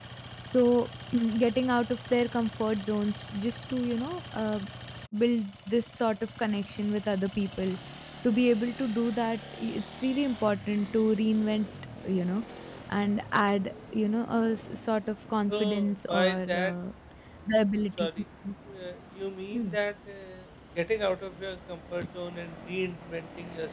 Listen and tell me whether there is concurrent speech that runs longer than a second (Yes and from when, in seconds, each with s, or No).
Yes, from 15.5 s